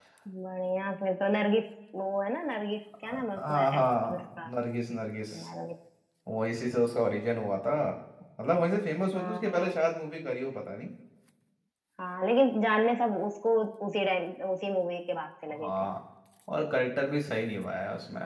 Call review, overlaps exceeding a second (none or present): present